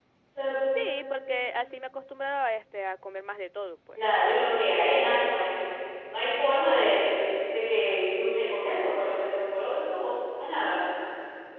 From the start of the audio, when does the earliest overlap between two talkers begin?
none

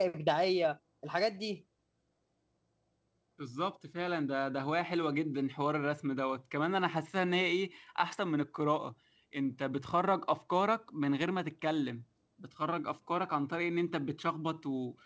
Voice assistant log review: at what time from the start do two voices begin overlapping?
none

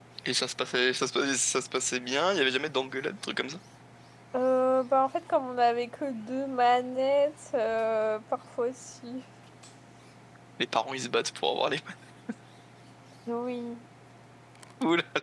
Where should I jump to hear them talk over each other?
none

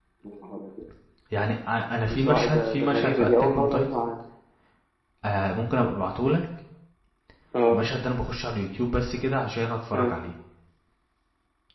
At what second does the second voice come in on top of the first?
2 s

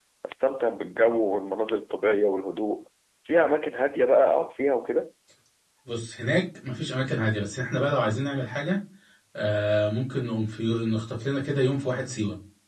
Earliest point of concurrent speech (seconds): none

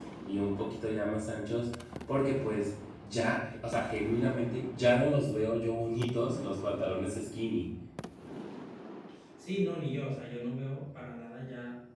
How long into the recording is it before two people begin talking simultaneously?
none

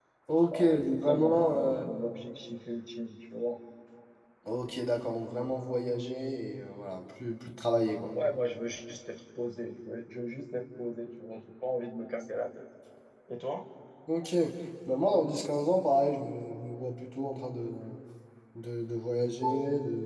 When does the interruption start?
1 s

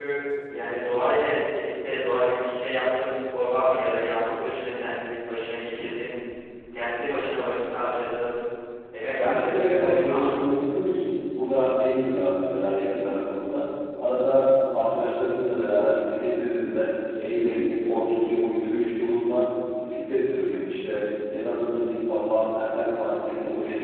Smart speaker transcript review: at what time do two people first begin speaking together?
9 s

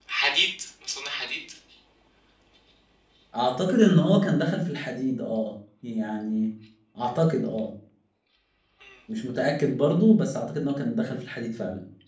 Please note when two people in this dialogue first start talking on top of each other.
none

